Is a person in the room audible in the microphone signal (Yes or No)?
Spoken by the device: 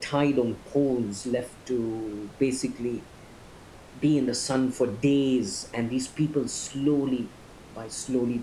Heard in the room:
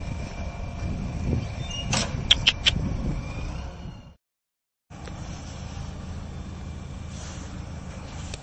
No